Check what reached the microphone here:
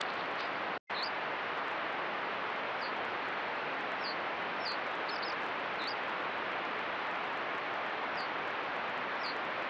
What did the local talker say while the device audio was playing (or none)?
none